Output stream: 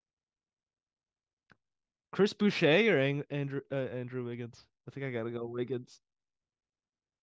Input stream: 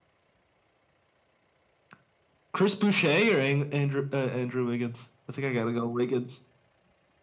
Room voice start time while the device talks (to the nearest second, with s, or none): none